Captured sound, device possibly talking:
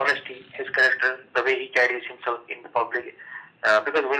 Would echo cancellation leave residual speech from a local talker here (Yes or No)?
No